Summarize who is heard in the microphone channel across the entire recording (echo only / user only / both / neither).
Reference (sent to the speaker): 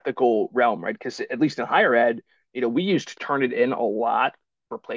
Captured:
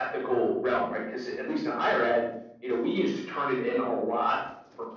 echo only